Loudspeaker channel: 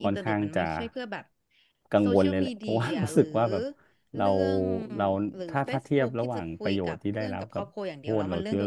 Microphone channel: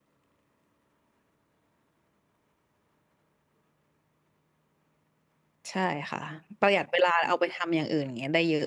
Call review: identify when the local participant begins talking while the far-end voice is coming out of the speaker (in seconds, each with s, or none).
5.7 s